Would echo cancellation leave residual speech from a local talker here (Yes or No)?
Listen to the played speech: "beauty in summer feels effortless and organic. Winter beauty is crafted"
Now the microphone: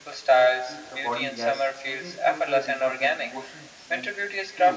Yes